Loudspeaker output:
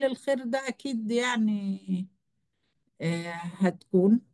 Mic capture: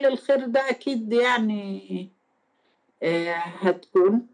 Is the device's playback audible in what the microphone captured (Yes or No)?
Yes